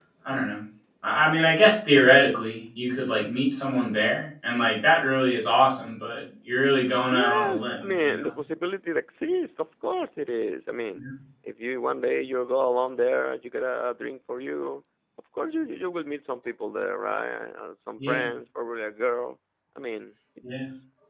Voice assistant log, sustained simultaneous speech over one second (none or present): present